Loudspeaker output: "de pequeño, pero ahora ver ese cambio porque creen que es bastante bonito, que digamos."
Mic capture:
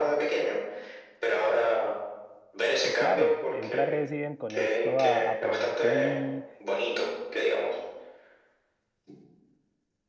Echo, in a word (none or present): present